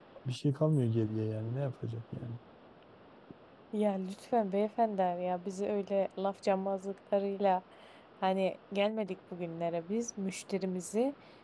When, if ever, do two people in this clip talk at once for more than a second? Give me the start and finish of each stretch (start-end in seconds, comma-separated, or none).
none